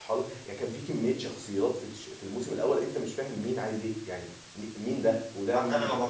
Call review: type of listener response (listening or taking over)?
taking over